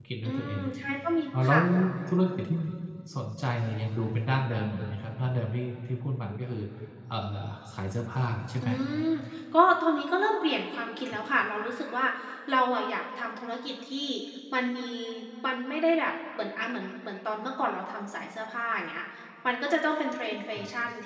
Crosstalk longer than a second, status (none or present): none